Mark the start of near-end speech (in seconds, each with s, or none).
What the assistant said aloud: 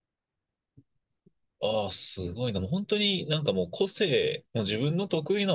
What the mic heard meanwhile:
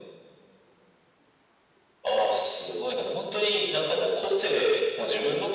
none